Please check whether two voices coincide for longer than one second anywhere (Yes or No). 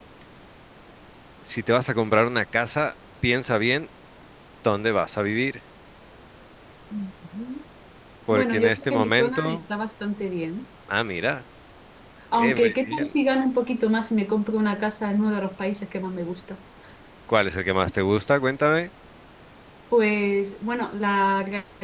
Yes